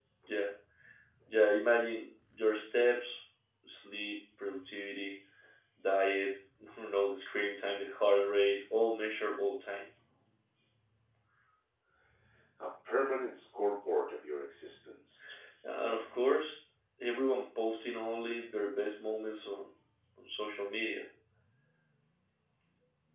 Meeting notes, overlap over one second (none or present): none